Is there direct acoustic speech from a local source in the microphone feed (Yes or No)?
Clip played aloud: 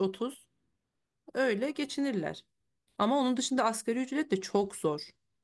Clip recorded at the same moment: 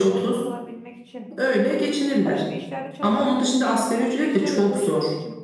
Yes